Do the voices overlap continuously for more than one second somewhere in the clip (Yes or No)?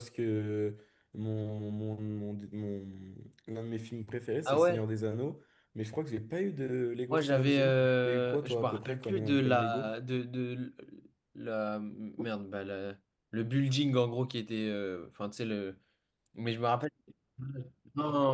Yes